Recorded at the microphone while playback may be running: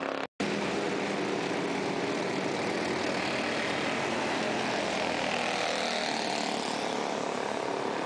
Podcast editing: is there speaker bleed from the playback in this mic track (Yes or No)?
No